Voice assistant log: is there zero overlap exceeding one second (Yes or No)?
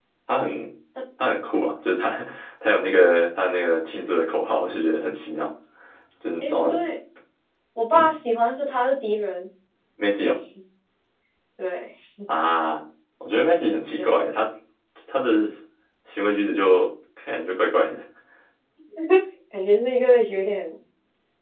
Yes